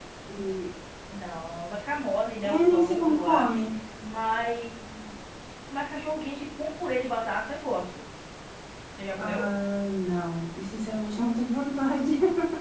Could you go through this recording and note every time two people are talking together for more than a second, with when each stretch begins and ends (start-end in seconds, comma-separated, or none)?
2.4-3.7